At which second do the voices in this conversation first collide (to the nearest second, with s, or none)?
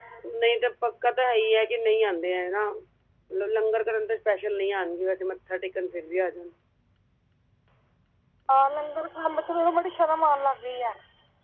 none